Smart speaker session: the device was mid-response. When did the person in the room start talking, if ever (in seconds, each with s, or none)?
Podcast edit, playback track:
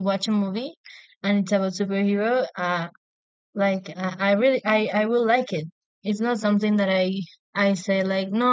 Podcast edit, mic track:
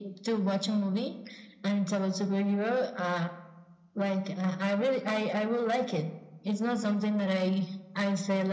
none